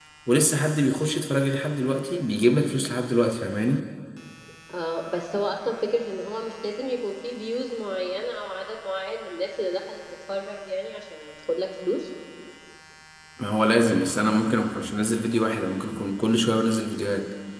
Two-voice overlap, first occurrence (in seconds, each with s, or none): none